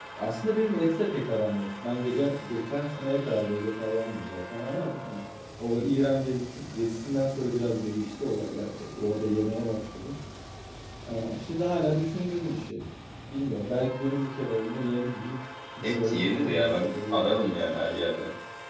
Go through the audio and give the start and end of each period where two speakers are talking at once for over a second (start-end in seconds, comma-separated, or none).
15.8-17.3